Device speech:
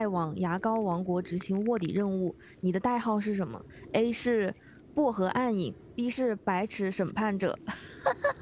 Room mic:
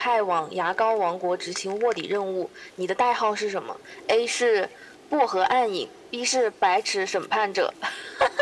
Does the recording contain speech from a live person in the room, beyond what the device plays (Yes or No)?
No